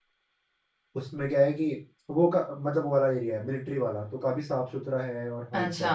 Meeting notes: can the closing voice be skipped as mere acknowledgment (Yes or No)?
No